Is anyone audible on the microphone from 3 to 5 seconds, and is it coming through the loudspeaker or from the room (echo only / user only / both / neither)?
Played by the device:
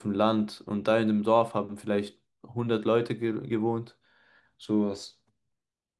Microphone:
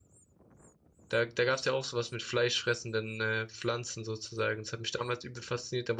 user only